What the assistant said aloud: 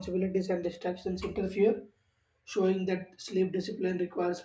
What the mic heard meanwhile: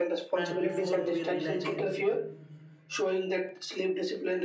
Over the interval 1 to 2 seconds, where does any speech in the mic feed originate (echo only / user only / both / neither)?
both